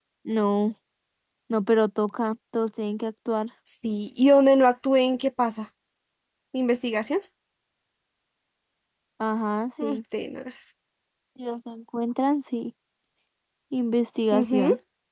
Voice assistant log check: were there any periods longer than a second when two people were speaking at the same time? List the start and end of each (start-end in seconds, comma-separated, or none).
none